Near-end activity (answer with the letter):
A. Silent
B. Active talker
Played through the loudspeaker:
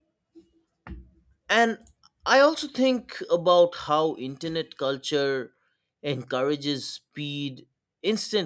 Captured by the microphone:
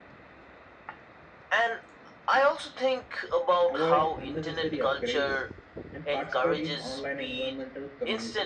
B